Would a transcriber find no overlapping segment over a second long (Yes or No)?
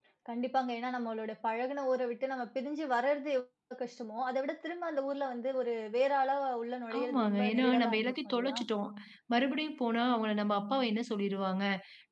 No